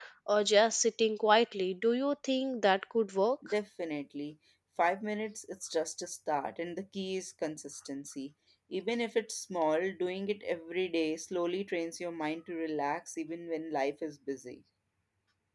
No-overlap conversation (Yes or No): Yes